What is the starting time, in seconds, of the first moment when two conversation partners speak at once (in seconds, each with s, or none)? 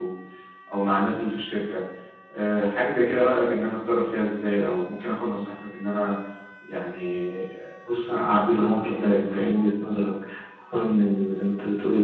8.1 s